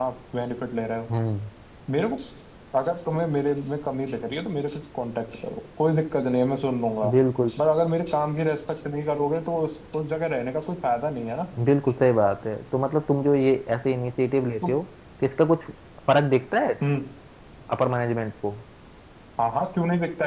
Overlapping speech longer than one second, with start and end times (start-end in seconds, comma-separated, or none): none